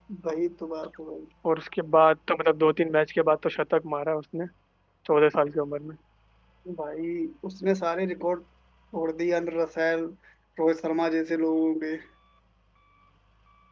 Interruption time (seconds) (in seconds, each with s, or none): none